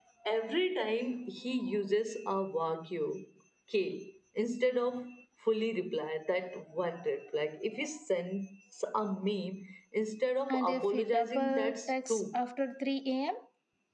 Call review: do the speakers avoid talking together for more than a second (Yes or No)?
No